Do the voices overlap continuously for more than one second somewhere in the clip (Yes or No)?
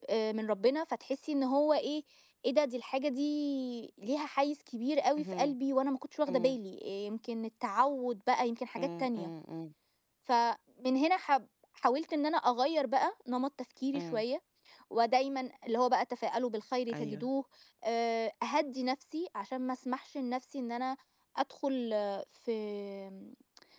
No